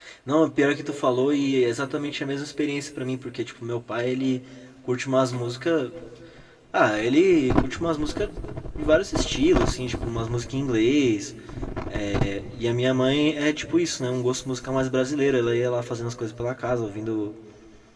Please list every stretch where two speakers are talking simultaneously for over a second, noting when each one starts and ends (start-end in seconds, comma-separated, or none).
none